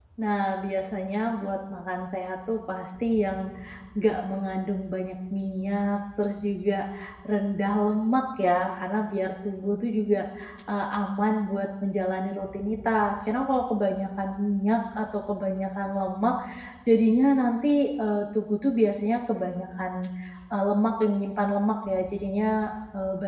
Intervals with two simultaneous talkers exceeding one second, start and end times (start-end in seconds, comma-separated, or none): none